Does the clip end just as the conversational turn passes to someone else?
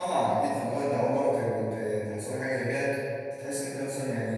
No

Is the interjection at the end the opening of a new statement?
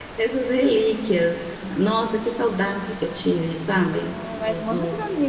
Yes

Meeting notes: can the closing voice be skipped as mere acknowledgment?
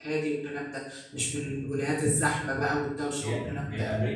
No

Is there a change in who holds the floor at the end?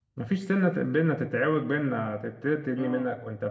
No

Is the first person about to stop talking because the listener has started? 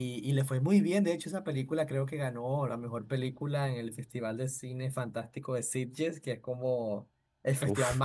No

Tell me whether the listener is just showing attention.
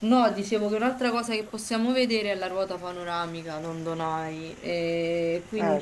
Yes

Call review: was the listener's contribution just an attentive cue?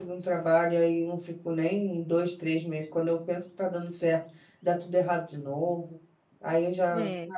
Yes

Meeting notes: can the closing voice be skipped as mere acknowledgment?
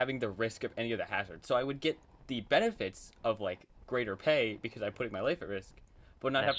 Yes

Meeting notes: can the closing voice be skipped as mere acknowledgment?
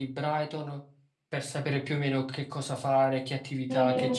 No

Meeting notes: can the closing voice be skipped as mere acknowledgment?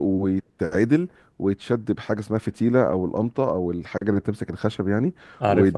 Yes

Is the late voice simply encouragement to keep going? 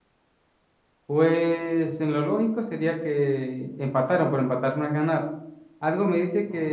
Yes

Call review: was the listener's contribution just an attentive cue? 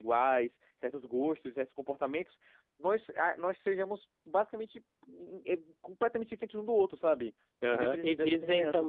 No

